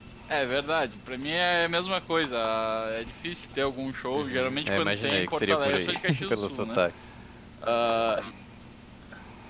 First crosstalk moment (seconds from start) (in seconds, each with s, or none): 4.1 s